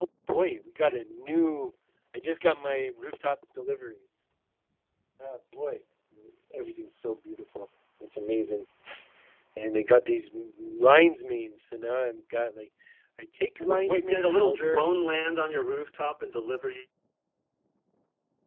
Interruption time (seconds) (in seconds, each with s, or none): 13.6 s